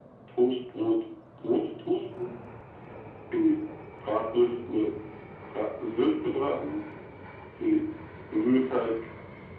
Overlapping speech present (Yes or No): No